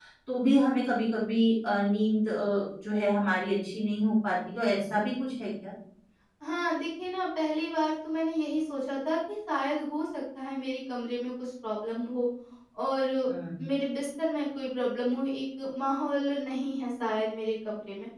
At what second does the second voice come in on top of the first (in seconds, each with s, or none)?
none